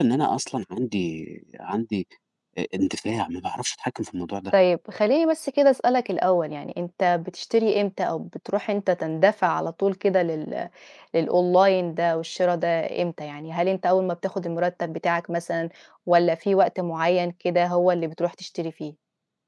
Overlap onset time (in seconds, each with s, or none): none